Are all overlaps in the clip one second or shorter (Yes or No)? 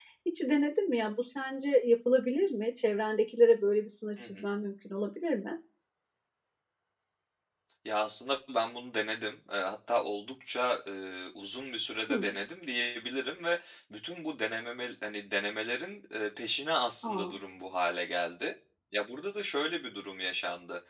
Yes